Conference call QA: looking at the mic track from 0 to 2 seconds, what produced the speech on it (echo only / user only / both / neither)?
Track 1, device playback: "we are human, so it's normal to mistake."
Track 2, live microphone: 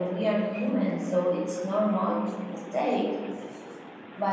echo only